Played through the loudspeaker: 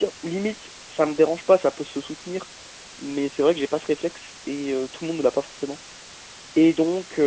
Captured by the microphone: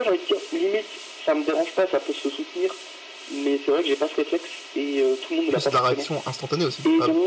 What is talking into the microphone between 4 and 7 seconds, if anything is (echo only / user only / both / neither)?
both